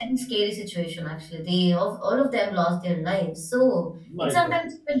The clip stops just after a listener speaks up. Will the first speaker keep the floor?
Yes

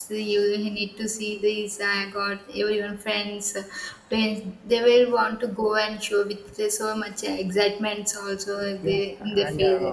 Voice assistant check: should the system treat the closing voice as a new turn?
Yes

